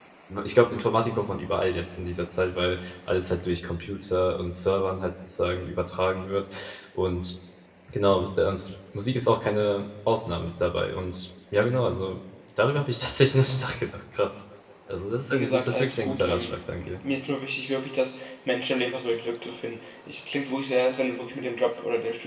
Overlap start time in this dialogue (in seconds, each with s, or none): 15.3 s